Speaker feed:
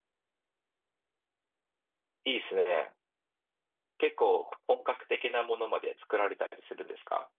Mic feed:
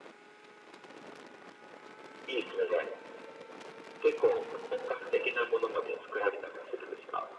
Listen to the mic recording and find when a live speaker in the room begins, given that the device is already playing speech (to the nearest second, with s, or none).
none